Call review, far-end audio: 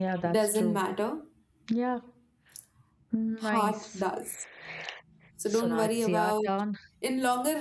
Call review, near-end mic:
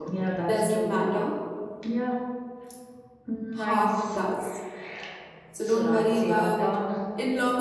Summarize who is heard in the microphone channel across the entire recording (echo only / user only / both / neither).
echo only